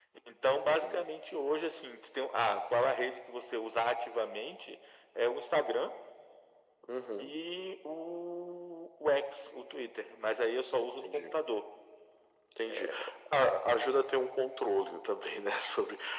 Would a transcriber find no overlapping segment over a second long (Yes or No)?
Yes